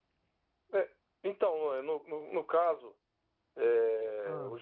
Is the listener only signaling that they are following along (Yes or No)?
Yes